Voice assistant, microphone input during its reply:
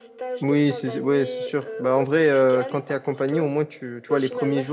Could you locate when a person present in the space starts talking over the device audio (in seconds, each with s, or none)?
0.4 s